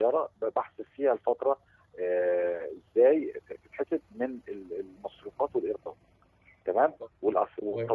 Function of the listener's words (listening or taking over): listening